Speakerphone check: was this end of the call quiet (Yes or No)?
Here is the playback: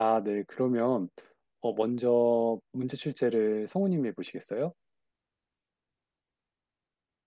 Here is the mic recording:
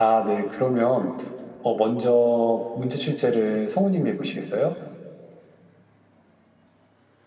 Yes